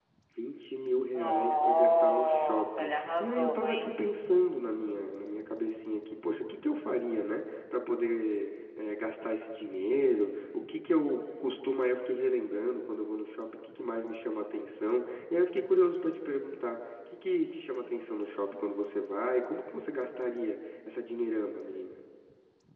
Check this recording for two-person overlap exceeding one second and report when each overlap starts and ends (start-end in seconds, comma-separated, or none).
1.1-3.9